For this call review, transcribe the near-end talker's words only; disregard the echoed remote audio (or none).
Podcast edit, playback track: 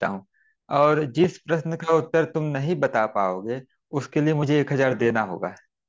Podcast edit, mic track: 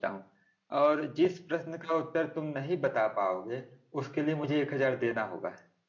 none